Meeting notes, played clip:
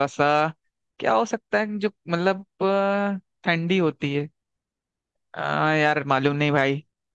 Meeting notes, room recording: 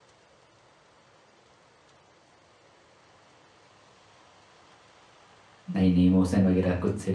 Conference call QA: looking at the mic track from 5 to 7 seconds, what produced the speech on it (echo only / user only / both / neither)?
user only